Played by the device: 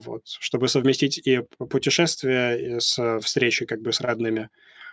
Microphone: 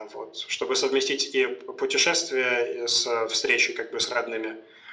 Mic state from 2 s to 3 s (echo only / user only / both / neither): echo only